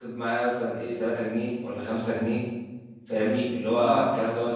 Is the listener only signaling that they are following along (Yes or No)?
Yes